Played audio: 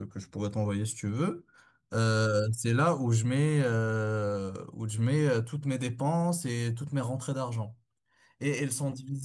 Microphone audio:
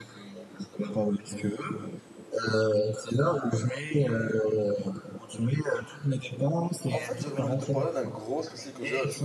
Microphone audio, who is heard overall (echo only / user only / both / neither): both